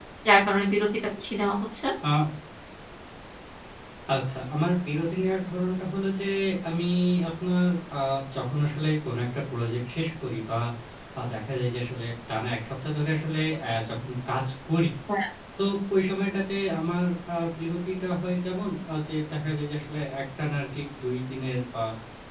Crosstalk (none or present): none